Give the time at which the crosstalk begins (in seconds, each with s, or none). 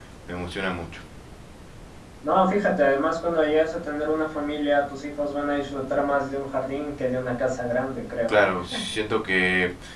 none